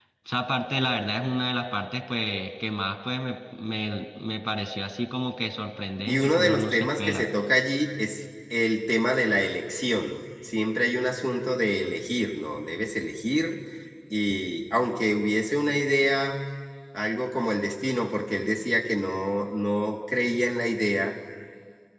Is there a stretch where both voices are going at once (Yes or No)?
Yes